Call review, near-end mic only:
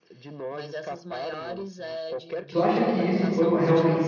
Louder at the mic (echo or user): user